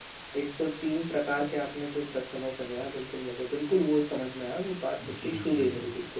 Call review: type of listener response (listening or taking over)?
taking over